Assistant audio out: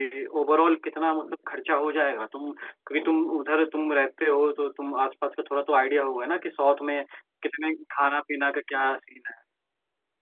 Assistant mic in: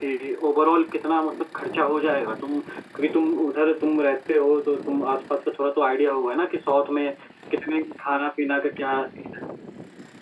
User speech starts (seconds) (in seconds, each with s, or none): none